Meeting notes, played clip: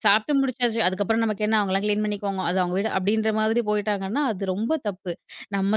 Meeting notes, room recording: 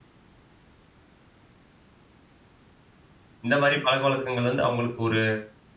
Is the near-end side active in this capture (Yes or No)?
Yes